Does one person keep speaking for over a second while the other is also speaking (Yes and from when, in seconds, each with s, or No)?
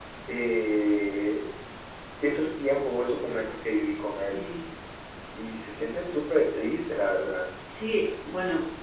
No